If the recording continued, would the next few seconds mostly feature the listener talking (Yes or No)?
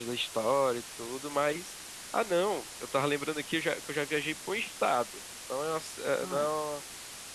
No